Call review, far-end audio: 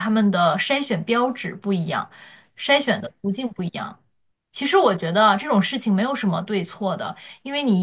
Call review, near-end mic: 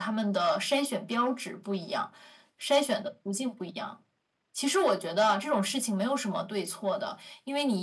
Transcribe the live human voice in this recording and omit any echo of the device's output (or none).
none